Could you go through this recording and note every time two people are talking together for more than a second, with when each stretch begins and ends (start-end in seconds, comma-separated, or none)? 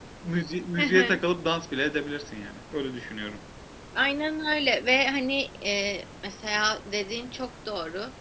none